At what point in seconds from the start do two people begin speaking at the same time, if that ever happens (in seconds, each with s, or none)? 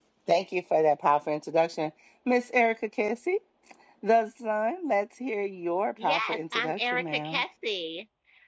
6.0 s